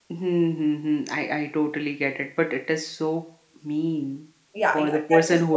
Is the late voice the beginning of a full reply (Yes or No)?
Yes